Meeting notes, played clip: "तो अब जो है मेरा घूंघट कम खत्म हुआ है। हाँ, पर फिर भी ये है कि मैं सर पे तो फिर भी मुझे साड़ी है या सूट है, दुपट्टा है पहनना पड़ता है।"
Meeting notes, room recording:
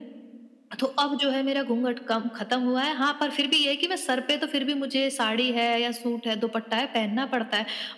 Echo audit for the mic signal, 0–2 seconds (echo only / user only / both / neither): echo only